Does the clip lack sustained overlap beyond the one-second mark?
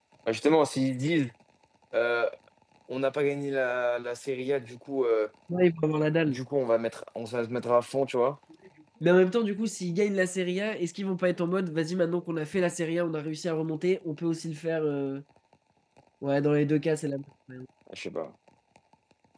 Yes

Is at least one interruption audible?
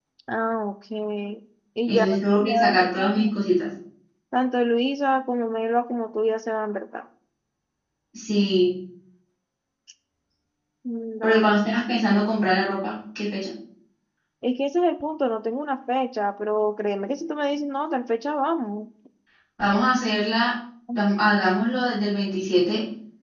Yes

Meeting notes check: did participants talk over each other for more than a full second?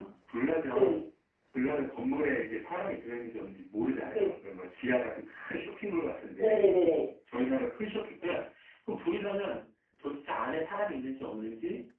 No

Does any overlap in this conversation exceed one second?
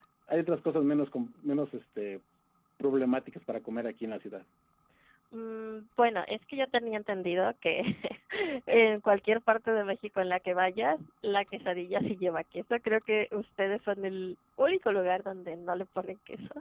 No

